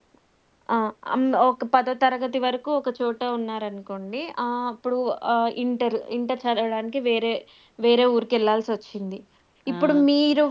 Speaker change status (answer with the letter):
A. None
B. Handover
A